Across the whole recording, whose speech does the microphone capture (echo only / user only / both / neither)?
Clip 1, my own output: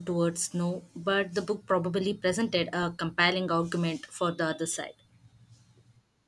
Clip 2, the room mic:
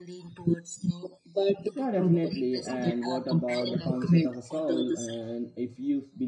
both